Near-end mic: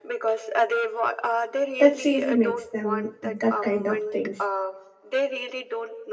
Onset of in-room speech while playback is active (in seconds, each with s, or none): 1.8 s